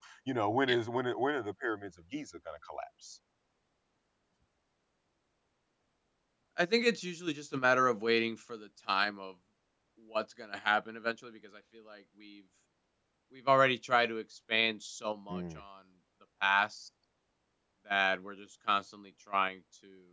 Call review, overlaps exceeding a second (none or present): none